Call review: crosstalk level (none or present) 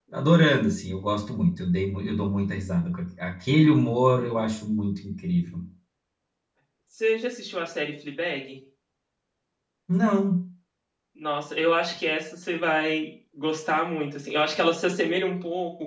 none